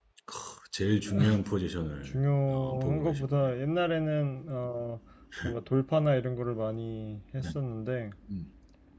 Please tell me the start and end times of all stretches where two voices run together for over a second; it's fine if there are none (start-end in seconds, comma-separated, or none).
2.0-3.5